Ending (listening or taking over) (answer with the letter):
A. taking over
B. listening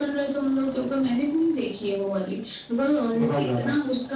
B